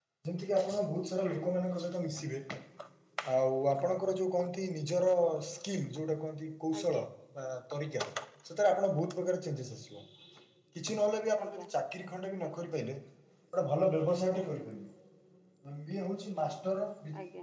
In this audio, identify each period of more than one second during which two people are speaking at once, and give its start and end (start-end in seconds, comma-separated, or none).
none